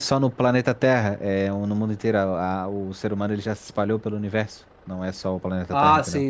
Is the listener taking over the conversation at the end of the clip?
Yes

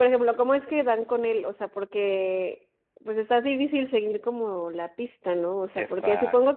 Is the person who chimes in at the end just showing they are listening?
Yes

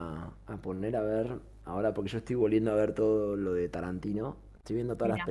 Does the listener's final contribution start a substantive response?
No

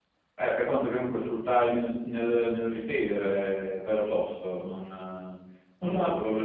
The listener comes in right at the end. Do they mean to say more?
No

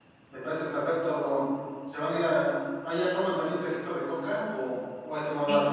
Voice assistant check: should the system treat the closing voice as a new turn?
Yes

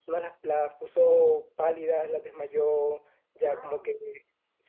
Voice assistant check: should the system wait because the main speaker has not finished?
Yes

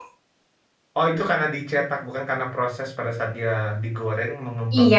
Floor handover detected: Yes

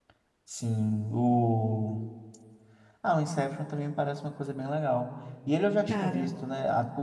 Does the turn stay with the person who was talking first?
Yes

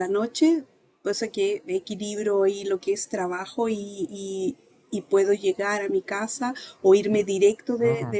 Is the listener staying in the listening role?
Yes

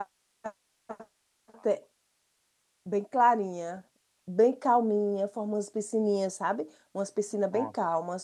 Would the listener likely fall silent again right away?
Yes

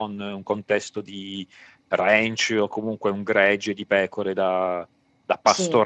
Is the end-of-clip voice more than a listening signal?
No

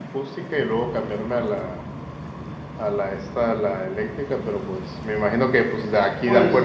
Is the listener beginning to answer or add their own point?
No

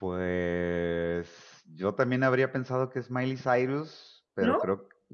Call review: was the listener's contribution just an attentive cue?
Yes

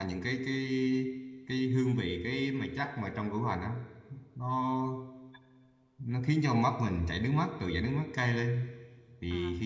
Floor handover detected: No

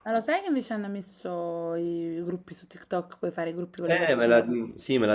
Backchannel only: No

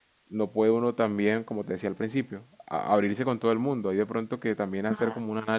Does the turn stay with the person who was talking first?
Yes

